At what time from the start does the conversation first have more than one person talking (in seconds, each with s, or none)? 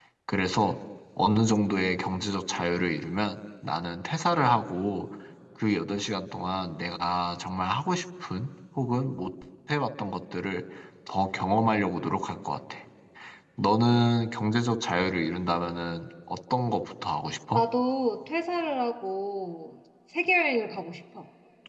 none